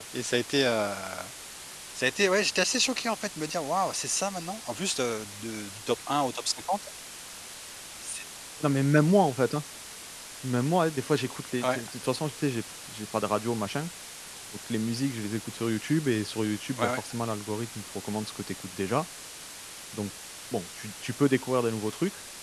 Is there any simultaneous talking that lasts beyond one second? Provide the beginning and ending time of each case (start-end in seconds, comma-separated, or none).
none